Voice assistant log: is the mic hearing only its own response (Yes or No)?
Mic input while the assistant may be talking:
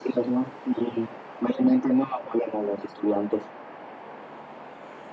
Yes